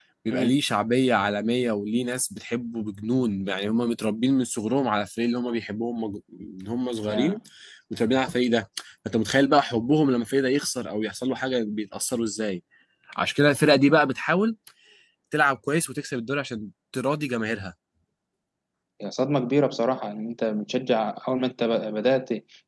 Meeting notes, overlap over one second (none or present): none